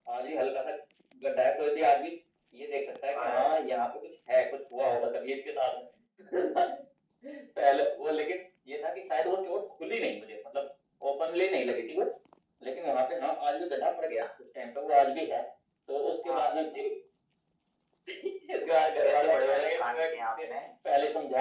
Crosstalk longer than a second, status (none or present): present